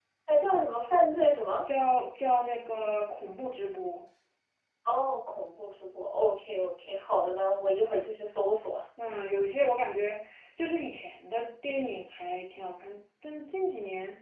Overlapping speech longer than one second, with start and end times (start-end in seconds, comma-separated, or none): none